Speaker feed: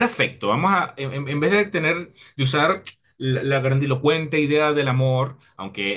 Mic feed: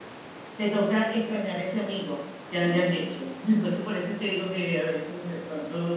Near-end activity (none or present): present